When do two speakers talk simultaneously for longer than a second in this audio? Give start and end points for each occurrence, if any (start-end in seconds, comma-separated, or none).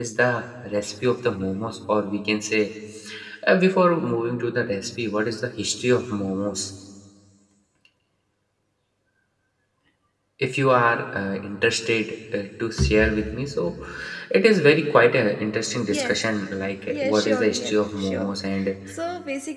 16.9-18.3